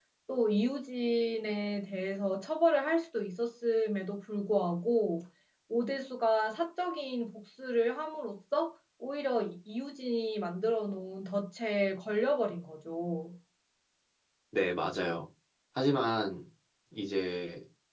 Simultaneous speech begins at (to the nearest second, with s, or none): none